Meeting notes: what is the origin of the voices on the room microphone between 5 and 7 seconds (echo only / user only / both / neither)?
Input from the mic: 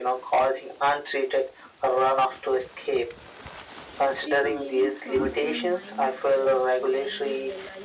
both